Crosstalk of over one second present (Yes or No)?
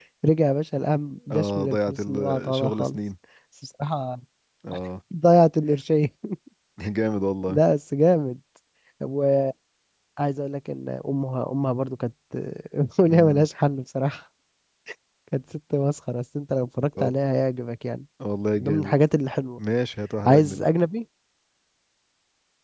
Yes